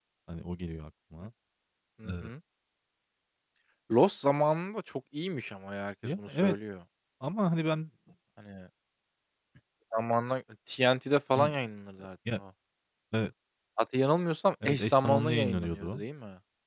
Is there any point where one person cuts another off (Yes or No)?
Yes